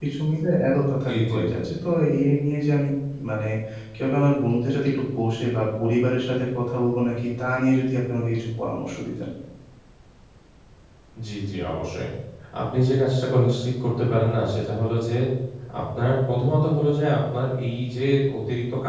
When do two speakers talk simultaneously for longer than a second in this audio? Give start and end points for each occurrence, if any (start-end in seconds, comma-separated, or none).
none